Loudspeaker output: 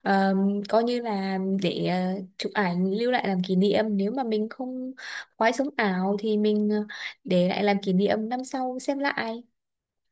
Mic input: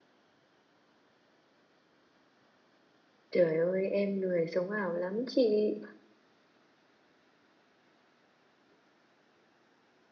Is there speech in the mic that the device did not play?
Yes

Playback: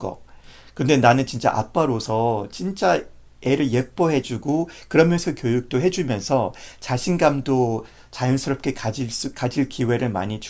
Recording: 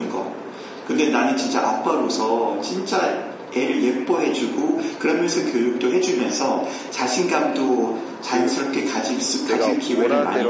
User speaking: Yes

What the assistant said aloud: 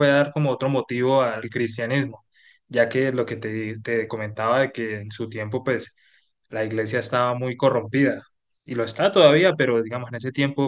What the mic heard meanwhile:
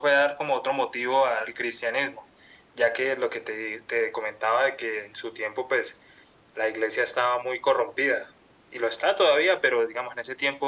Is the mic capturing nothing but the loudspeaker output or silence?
Yes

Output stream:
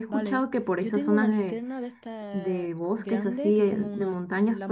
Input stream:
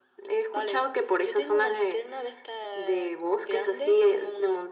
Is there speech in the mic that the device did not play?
No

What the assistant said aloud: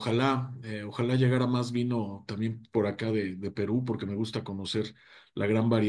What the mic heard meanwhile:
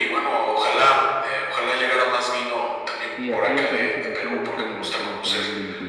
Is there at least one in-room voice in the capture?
Yes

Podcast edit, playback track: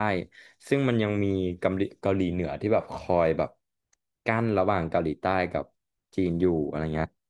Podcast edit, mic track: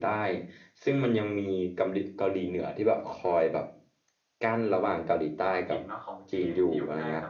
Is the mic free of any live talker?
No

